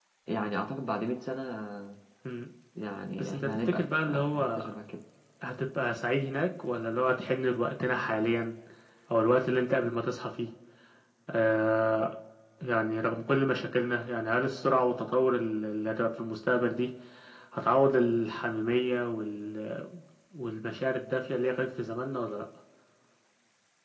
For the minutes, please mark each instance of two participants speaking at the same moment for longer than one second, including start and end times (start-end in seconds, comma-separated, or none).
3.2-4.7